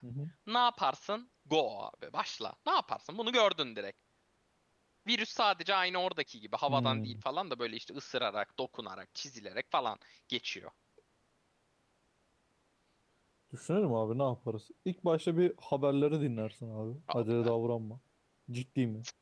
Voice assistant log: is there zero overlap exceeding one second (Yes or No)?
Yes